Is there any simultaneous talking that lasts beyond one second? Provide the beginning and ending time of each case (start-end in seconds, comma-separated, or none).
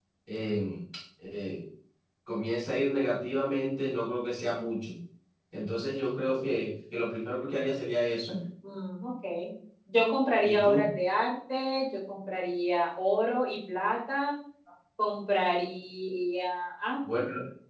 none